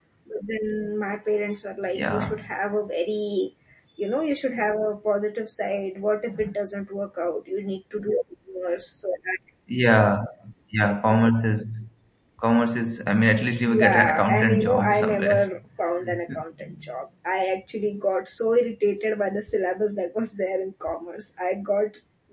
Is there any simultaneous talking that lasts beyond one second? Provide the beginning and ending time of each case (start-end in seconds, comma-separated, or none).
13.7-15.5